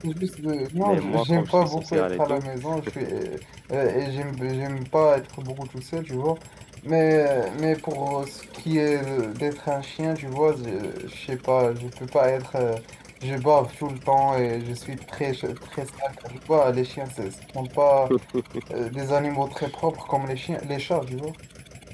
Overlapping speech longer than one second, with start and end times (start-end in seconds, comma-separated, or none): 0.8-2.5